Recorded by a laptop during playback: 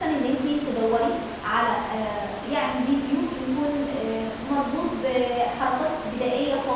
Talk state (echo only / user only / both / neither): user only